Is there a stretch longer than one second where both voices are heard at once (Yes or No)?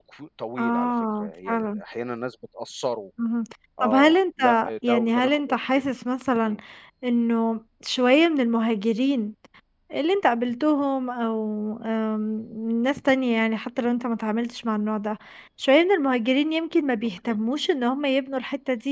Yes